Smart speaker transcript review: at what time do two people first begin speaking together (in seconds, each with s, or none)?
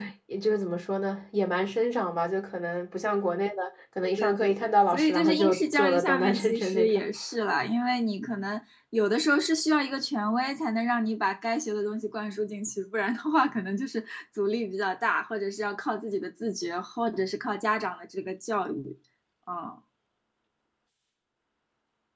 4.0 s